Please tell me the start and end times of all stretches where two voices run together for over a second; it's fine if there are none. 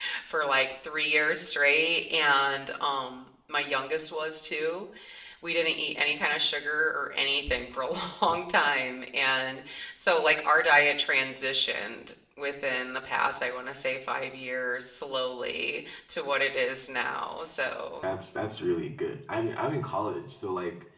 none

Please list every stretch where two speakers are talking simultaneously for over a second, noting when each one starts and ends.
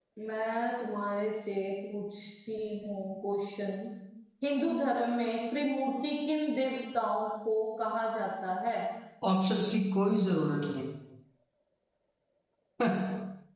none

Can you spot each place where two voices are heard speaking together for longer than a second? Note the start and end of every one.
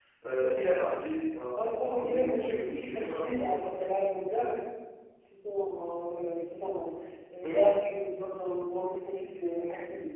1.6-4.0

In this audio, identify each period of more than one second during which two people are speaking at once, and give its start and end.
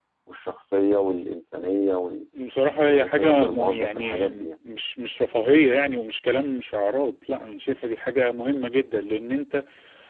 2.9-4.5

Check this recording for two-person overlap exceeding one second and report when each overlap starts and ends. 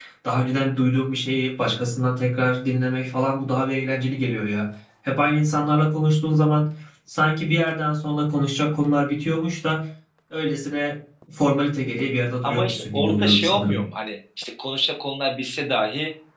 12.4-13.8

